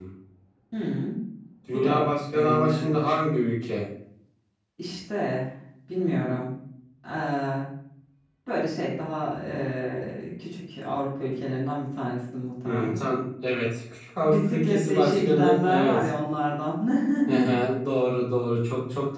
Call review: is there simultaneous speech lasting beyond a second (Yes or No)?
Yes